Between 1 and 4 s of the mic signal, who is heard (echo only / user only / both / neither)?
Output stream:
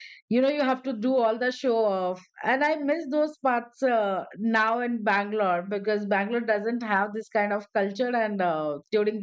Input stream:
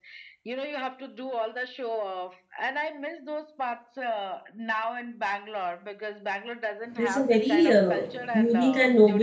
echo only